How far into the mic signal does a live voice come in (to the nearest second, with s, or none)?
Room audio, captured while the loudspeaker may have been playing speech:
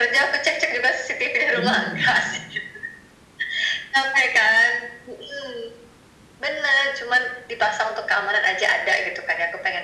2 s